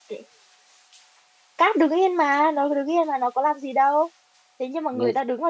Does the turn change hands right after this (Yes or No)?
No